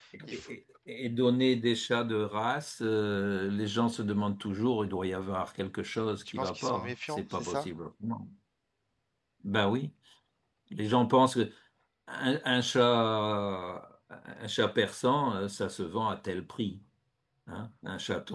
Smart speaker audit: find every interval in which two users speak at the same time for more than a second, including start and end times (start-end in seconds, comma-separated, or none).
6.3-7.7